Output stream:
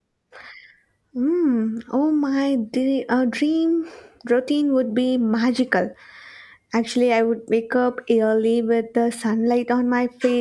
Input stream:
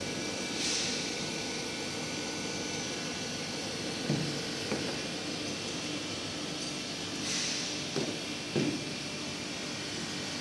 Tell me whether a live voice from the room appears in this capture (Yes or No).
No